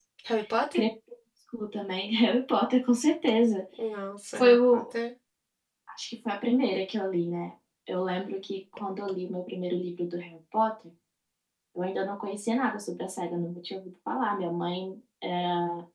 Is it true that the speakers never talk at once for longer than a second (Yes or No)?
Yes